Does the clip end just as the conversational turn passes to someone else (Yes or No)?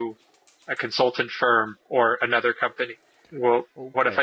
Yes